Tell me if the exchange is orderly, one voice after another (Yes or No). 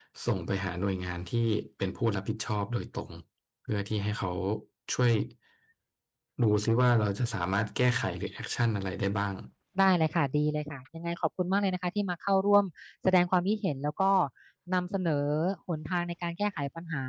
Yes